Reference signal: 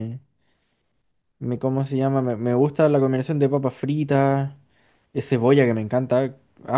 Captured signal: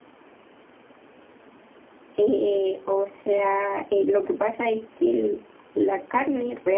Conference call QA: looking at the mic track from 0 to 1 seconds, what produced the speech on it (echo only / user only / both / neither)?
neither